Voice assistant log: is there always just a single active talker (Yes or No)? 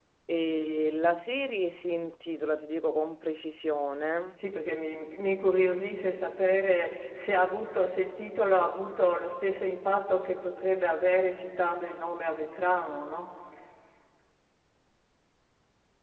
Yes